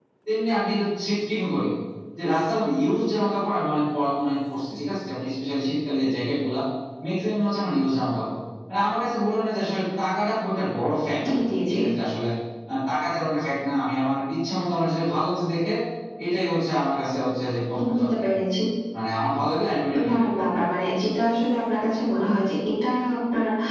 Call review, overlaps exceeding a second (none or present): none